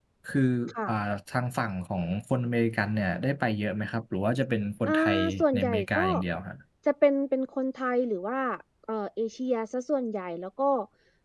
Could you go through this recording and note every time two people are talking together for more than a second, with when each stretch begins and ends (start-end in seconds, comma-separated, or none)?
4.9-6.1